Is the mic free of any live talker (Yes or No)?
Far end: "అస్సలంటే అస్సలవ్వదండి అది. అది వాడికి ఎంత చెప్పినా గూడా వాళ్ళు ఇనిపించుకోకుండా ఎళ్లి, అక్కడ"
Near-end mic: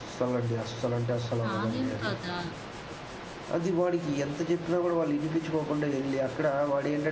No